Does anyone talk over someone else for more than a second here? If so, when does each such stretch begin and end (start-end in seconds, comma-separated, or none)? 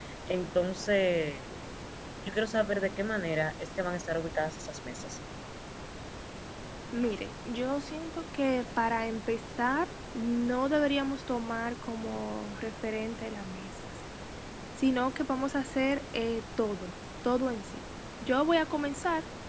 none